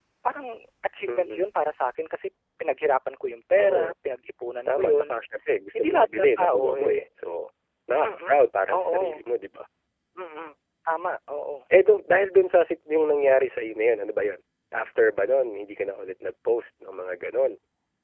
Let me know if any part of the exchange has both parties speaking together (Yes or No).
Yes